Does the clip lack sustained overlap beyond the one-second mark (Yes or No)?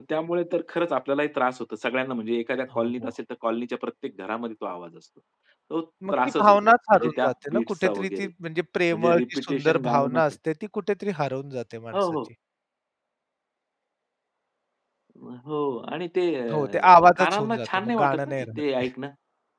No